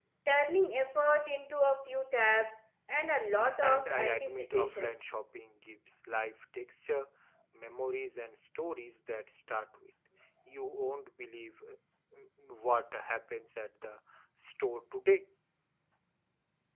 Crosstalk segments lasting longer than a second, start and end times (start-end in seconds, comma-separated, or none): 3.6-5.0